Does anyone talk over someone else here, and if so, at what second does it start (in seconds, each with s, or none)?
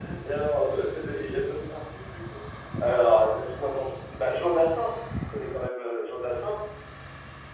none